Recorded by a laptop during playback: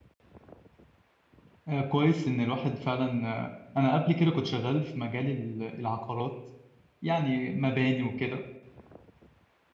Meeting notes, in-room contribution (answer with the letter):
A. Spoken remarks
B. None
A